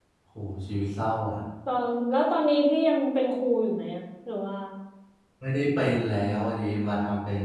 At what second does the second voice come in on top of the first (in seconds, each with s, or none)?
none